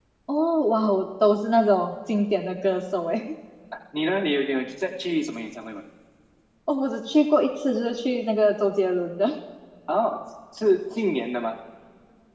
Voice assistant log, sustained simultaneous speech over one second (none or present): none